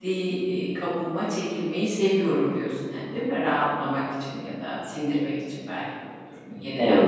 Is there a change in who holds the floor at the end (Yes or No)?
Yes